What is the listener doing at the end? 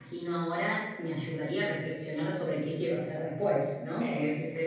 listening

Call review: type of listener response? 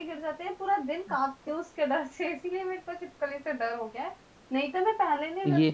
listening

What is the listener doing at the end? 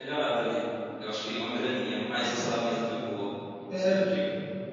taking over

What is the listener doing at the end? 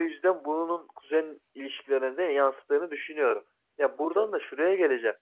listening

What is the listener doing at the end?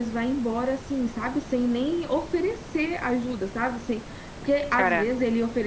listening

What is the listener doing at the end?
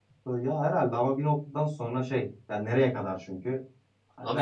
listening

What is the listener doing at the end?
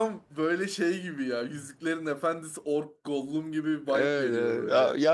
taking over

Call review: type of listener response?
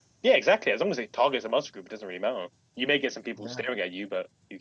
listening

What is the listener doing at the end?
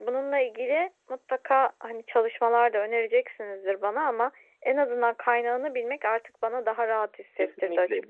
taking over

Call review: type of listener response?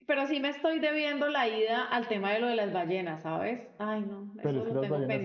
taking over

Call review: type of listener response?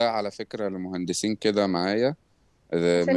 listening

